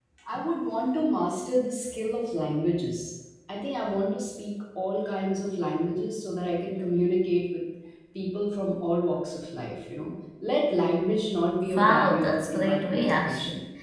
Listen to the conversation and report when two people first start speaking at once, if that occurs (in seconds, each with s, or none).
11.7 s